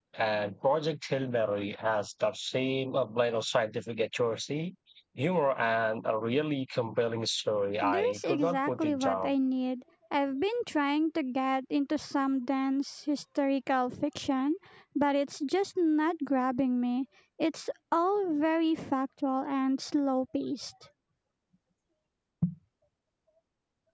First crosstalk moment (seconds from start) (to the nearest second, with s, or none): 8 s